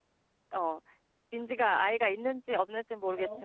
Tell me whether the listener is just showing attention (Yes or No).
Yes